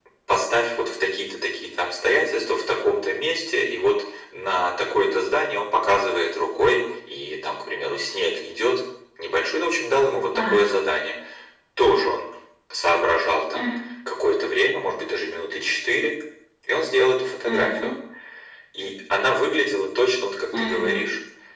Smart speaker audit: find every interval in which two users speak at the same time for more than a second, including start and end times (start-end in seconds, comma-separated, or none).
none